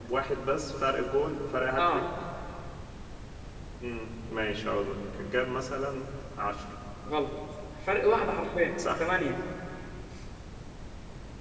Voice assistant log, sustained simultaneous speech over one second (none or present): none